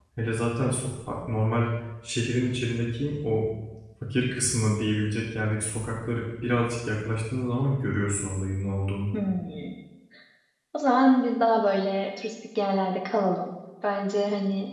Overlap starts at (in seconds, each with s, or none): none